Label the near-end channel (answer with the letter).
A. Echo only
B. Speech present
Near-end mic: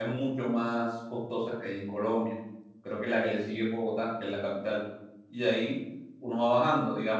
B